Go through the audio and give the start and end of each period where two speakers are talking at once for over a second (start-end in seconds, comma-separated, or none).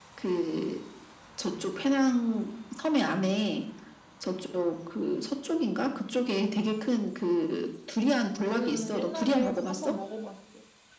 8.5-9.9